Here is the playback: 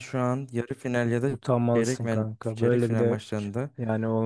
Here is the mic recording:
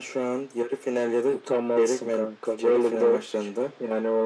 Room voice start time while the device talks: none

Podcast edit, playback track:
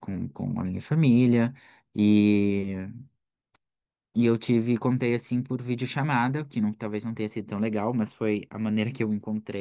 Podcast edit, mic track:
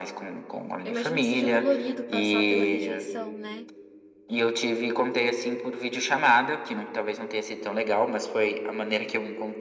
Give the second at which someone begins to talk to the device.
1 s

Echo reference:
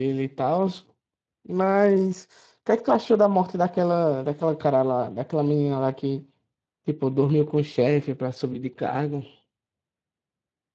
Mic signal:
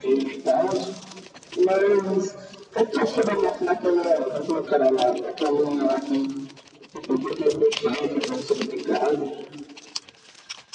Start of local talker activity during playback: none

